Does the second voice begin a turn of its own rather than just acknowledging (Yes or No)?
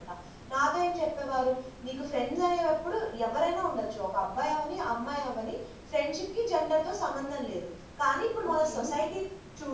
No